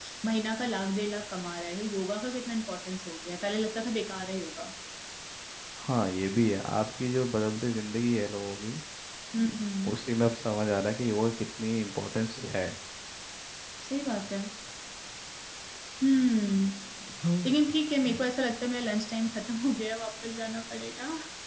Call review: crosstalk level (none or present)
none